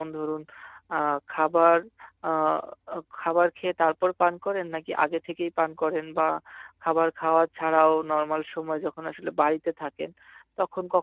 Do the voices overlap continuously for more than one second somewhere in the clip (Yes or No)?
No